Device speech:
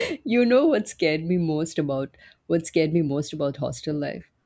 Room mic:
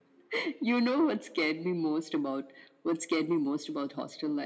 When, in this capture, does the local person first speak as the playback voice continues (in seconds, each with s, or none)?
none